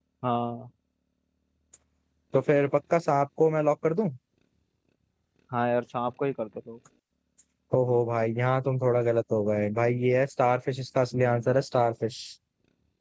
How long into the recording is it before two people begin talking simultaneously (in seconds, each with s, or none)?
none